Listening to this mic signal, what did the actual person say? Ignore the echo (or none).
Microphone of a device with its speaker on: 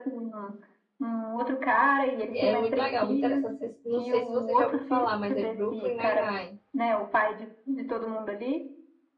É muito legal, muito interessante. Vocês- Não sei se você já ouviu falar, mas é Brooklyn Nine-Nine.